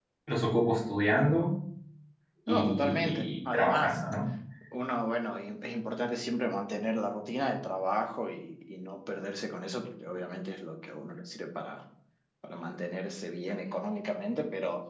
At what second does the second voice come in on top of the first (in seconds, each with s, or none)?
2.5 s